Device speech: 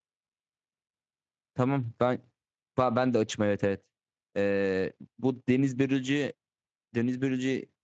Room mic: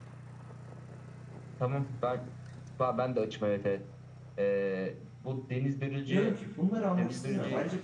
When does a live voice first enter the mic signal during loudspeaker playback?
6.0 s

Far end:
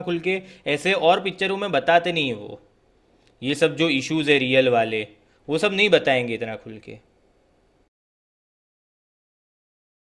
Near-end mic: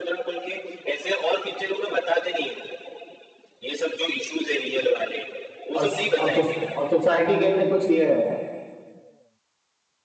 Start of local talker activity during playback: 5.7 s

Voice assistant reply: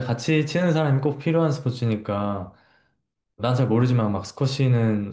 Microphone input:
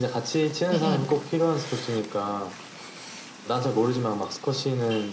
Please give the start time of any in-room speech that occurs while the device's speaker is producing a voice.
0.7 s

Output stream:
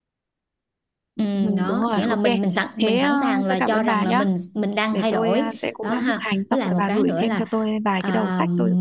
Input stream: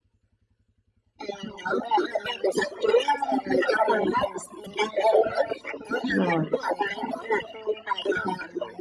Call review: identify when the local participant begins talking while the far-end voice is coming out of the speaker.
6.1 s

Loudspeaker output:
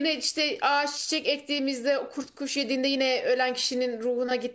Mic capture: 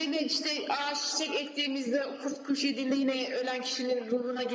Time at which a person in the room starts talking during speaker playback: none

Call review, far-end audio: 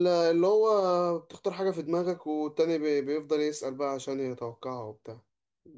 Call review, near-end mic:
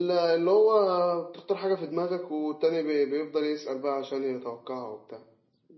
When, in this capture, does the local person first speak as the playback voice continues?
none

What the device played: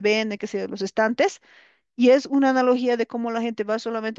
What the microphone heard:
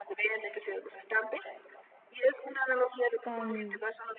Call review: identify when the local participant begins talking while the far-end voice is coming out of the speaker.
3.2 s

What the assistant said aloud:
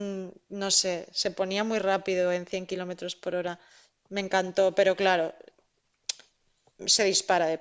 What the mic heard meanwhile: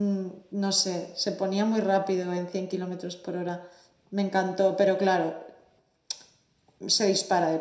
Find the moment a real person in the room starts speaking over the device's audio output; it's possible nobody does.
none

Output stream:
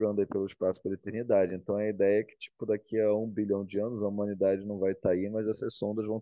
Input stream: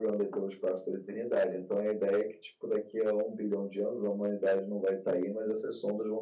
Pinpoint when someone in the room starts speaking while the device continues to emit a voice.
none

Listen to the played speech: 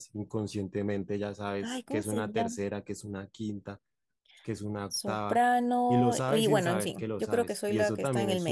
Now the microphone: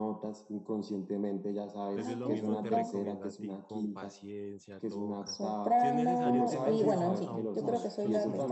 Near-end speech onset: 1.9 s

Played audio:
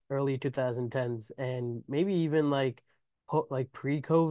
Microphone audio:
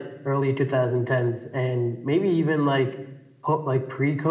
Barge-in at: none

